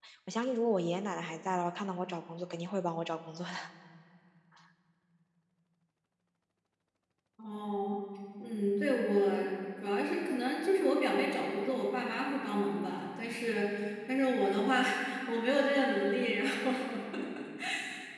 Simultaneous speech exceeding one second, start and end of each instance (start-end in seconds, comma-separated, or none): none